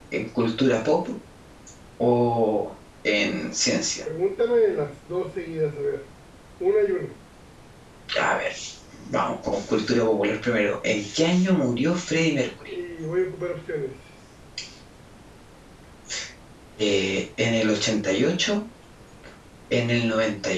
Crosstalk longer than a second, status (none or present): none